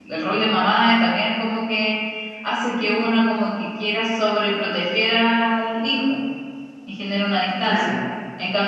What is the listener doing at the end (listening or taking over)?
listening